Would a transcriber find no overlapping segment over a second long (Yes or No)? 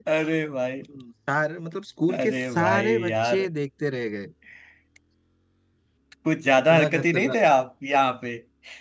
No